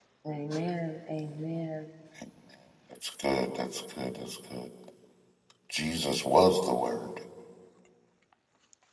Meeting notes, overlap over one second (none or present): none